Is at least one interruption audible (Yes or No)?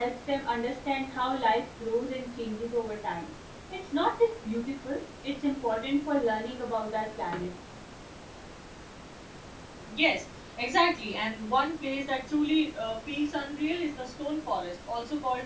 No